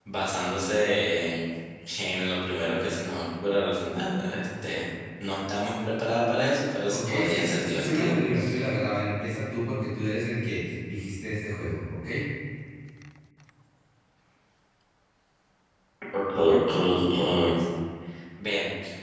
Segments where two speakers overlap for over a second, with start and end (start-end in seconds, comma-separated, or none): 6.9-8.1